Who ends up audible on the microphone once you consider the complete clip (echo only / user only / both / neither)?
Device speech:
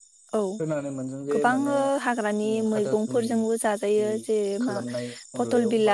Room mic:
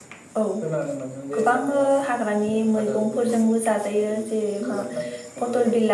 echo only